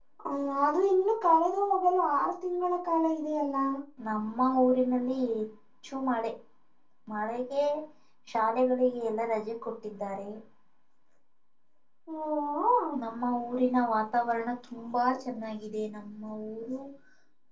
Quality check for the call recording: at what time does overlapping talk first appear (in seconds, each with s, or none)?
none